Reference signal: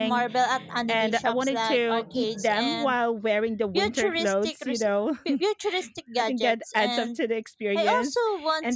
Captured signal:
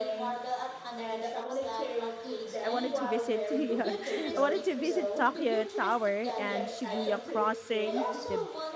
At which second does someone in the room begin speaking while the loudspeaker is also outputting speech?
3 s

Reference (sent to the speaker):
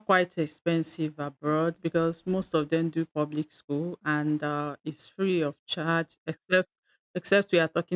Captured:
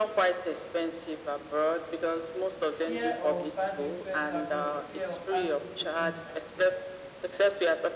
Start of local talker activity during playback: 3 s

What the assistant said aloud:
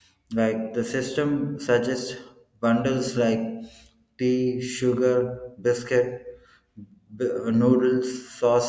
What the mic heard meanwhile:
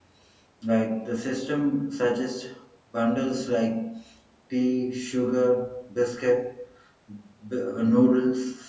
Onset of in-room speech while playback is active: none

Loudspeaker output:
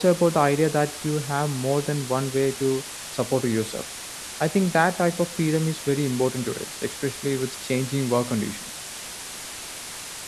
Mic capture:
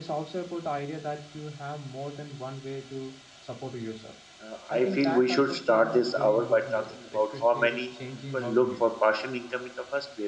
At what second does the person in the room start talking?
4 s

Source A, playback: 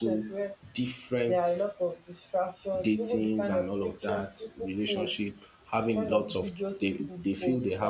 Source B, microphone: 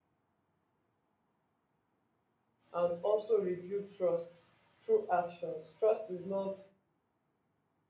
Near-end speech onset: 3 s

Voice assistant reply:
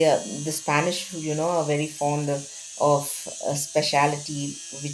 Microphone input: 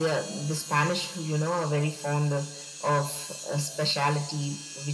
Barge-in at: none

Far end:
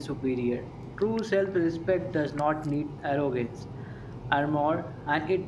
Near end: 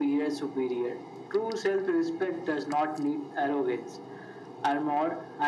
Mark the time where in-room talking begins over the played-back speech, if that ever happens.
none

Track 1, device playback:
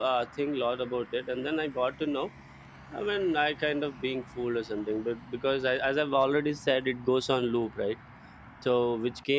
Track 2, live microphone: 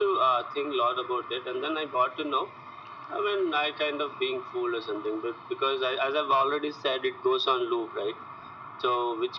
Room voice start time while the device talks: none

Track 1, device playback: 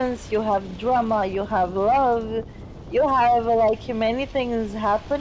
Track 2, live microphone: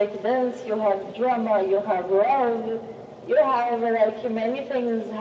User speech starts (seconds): none

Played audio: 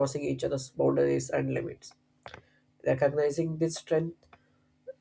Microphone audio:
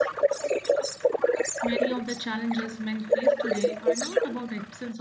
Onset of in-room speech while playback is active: 2 s

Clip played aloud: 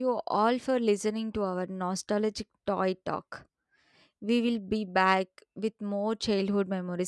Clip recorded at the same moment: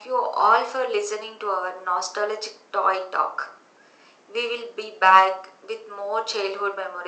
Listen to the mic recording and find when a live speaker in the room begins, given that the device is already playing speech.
none

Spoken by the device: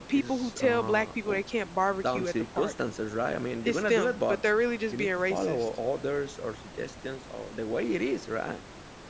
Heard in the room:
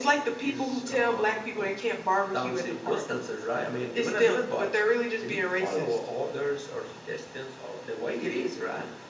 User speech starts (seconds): none

